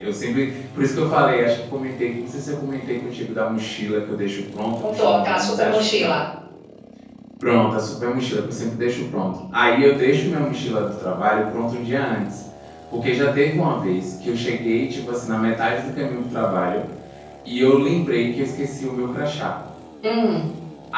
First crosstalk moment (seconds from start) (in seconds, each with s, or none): 4.8 s